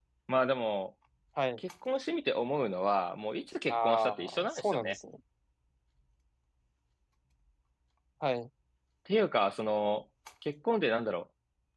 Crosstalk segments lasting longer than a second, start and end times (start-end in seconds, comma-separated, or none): 3.7-5.0